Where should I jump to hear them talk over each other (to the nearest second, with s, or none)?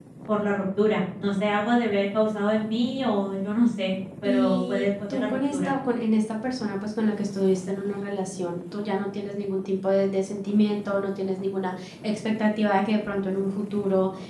4 s